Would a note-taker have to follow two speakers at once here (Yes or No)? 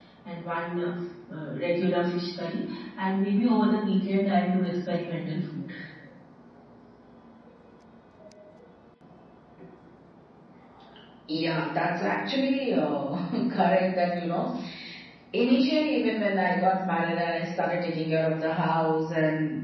No